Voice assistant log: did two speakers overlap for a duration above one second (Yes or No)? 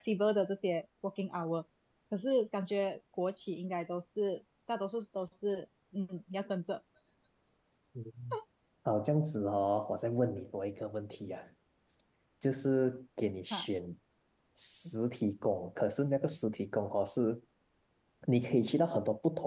No